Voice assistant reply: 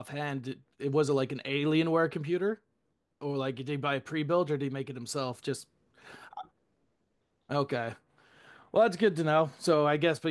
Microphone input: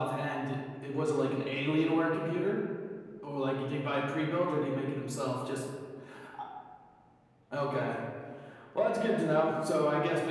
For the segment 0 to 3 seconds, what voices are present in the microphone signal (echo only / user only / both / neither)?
echo only